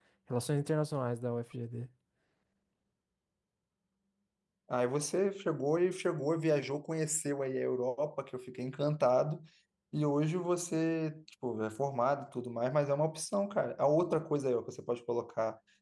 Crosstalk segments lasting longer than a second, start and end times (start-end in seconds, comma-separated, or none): none